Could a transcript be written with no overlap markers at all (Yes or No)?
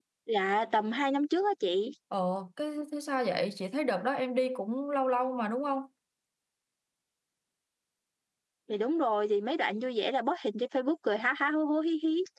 Yes